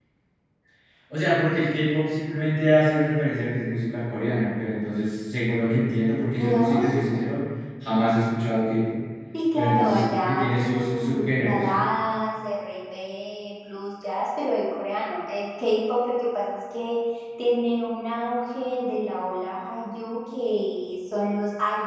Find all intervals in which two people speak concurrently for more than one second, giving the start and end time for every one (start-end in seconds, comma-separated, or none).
9.6-11.6